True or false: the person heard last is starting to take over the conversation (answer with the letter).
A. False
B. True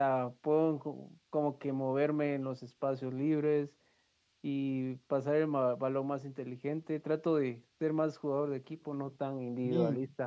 B